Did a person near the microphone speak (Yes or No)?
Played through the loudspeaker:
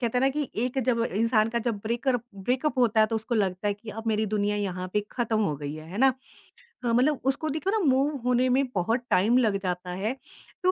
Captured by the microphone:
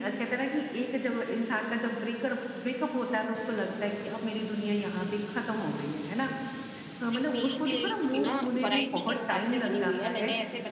Yes